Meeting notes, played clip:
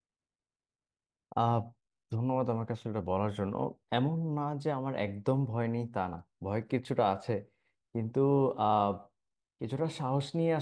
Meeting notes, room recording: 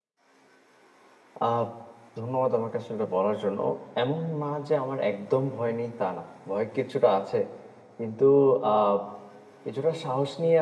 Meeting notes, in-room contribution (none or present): none